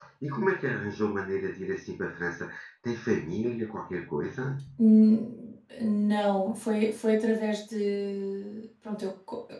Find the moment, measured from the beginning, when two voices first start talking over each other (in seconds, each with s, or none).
none